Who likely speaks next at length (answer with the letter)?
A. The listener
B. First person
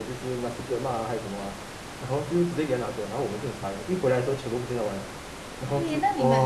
A